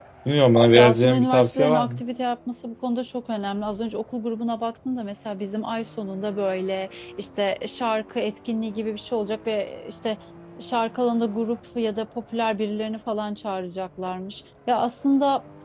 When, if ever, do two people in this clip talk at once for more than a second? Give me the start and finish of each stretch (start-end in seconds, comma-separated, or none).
0.8-2.0